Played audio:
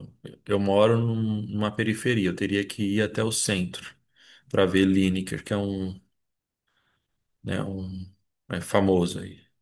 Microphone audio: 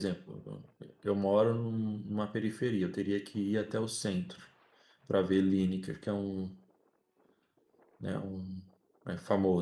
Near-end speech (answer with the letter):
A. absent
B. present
A